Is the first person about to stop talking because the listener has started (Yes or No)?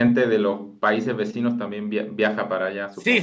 Yes